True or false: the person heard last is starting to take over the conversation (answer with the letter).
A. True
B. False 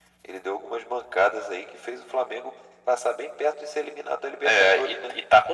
A